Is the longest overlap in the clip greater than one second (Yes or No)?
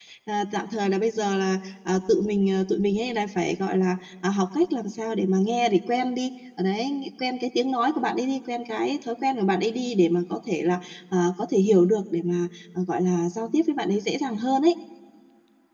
No